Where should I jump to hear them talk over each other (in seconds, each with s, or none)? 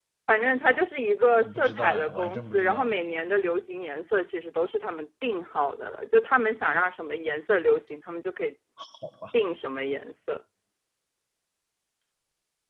1.4 s